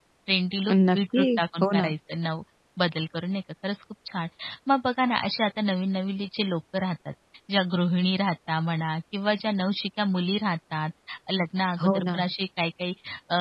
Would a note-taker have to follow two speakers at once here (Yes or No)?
Yes